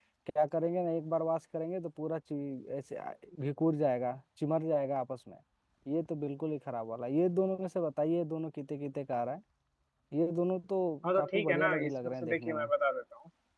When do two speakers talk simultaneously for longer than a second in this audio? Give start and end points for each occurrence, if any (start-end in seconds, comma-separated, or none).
11.1-12.7